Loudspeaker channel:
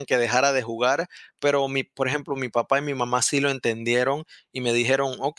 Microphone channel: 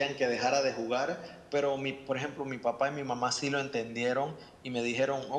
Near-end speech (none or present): none